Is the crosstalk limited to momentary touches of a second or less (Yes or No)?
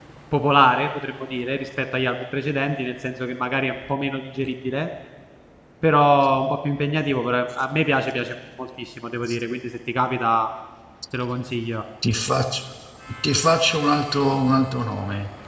Yes